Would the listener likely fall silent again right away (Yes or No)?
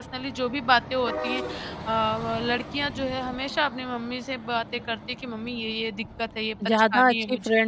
No